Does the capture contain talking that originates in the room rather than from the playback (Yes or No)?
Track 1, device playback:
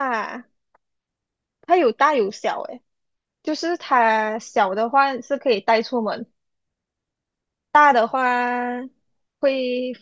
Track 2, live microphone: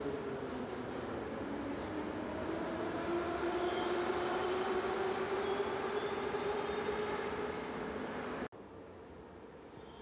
No